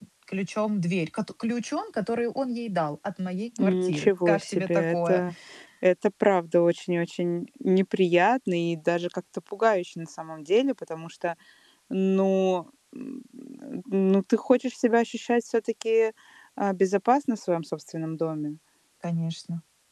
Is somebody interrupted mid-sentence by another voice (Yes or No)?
Yes